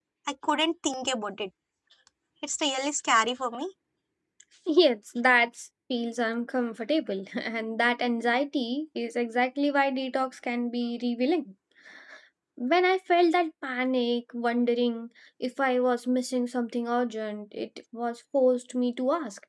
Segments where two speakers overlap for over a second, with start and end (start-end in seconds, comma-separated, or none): none